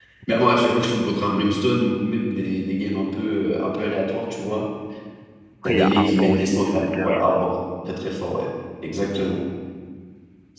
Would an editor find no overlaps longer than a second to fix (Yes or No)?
No